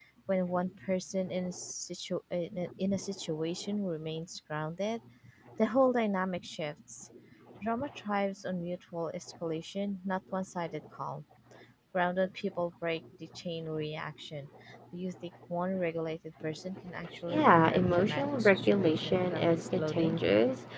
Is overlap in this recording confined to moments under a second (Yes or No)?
No